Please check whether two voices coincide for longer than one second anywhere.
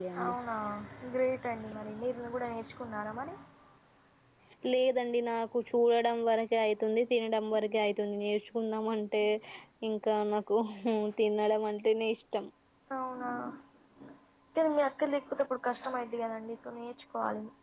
No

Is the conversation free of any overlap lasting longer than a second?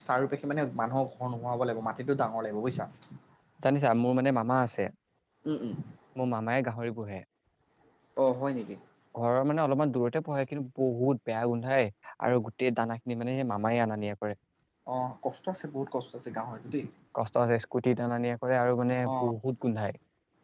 Yes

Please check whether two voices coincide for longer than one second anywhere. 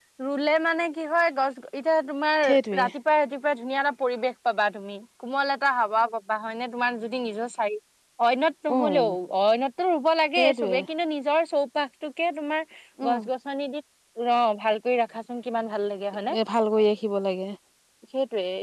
No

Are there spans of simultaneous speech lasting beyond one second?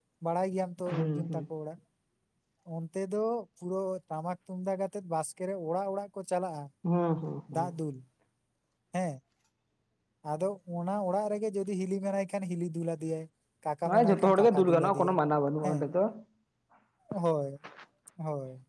Yes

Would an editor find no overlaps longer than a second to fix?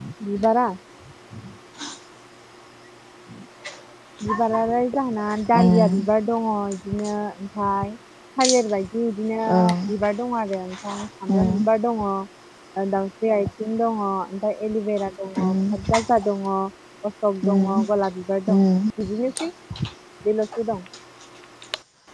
Yes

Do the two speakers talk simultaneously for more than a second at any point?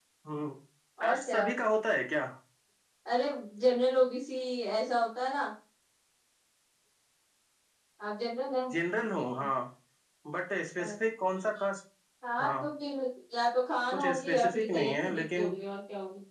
Yes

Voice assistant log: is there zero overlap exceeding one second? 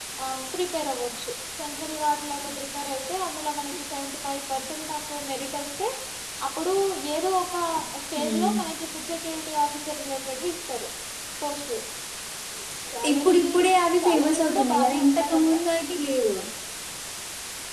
No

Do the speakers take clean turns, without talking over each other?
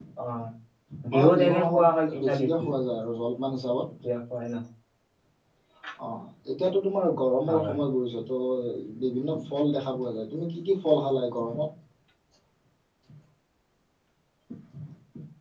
No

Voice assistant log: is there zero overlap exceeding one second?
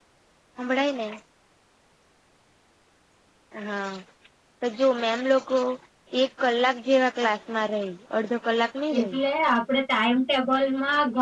Yes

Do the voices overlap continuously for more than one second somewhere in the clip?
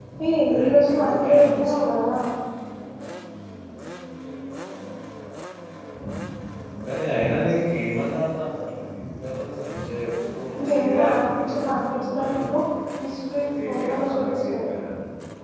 Yes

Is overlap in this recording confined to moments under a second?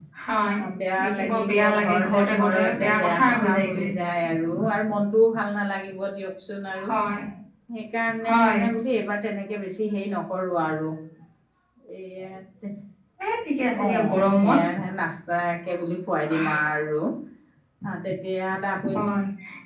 No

